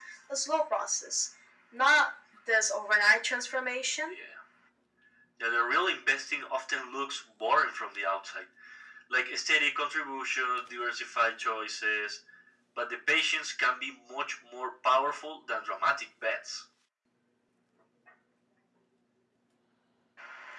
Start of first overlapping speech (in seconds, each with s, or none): none